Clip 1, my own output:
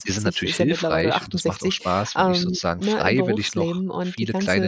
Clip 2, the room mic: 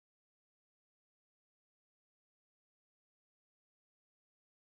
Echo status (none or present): none